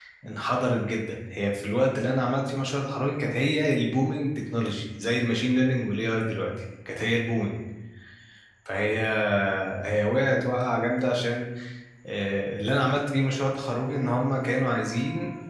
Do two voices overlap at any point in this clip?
No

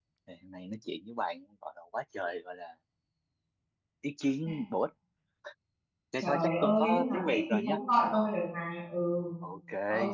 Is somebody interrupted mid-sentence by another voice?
Yes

